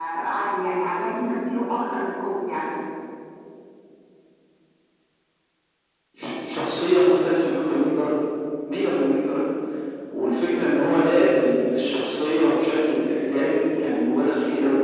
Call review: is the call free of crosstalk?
Yes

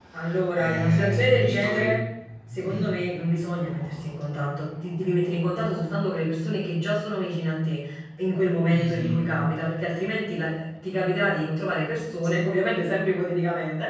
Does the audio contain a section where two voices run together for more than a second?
Yes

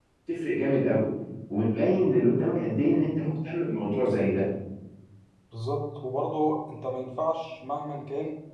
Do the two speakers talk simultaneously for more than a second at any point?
No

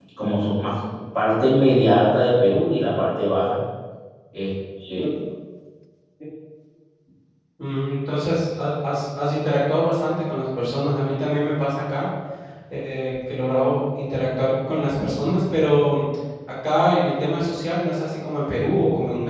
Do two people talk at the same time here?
No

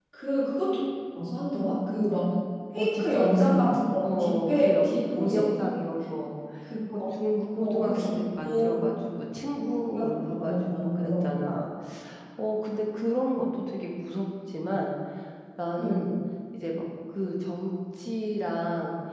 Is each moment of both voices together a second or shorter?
No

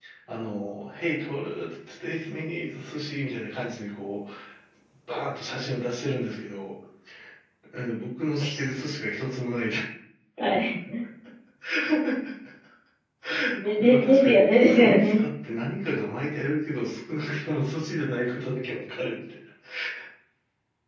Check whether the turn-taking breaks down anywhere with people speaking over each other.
Yes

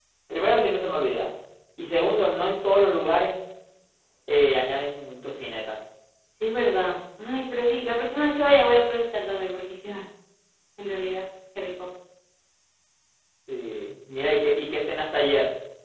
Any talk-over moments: No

